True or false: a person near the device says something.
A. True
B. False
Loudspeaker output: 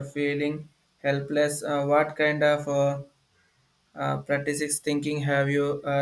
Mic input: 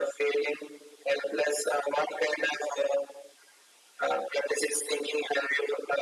B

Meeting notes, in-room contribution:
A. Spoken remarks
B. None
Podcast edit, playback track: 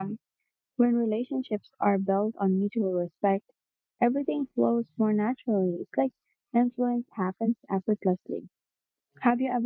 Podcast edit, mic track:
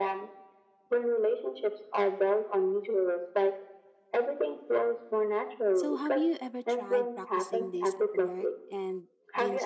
A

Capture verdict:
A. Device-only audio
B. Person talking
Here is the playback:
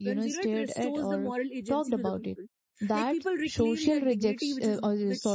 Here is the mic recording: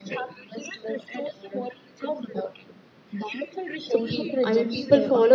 B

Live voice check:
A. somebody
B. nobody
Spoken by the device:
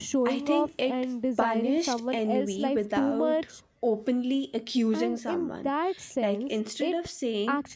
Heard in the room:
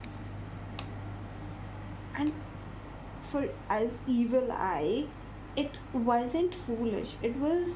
A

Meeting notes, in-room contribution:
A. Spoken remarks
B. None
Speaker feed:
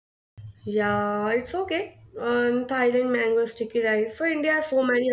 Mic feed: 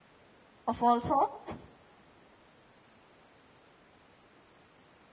A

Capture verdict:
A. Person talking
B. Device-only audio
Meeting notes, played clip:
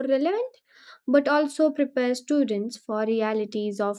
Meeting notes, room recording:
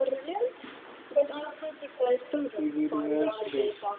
A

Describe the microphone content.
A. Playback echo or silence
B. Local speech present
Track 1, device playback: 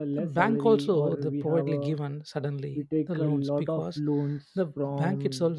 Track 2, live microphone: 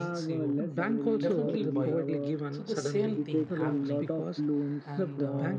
B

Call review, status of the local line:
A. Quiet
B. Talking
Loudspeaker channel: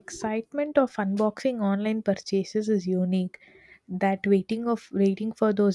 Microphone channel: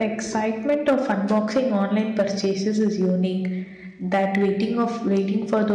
A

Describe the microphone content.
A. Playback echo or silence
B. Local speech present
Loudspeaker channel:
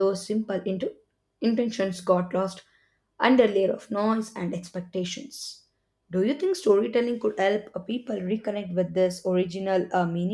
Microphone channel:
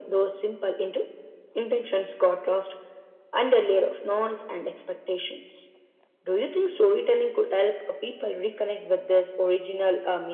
A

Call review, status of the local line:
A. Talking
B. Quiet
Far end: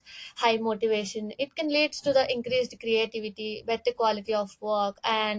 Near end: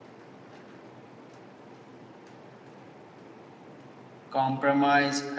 A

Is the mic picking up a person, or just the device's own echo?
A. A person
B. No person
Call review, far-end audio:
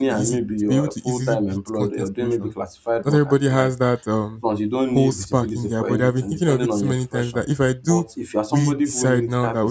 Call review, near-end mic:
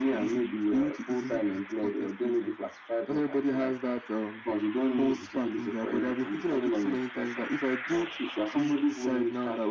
B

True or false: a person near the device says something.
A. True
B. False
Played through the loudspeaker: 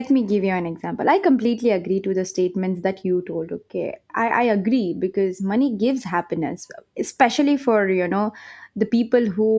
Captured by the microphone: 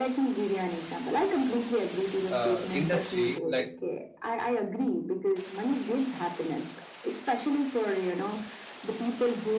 A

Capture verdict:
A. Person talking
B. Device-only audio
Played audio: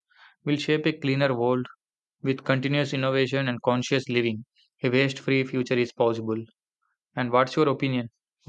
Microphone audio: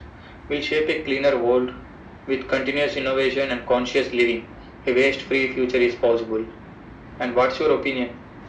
B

